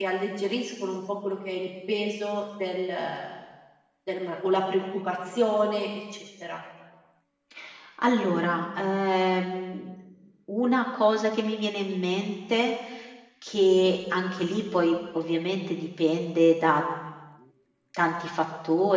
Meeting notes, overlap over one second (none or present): none